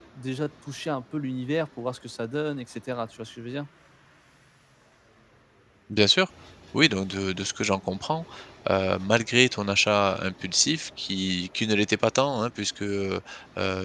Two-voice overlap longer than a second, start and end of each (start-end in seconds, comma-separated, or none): none